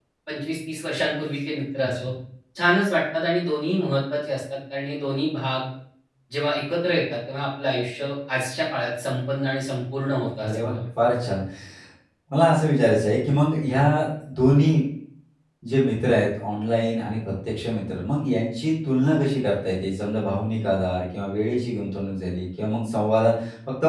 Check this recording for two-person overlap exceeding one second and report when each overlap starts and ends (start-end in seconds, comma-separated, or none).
none